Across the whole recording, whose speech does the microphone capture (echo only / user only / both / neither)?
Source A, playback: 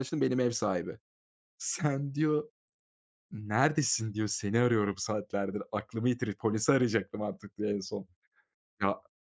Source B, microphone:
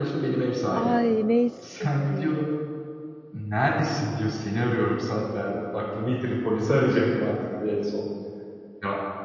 both